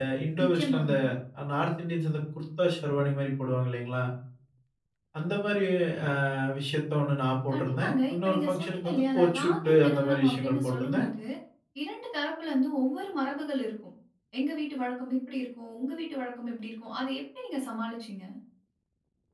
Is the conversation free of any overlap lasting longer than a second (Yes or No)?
No